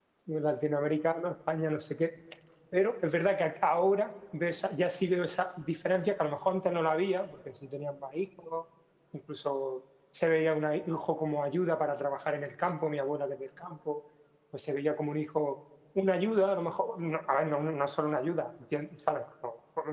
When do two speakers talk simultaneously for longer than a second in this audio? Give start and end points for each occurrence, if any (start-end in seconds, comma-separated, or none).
none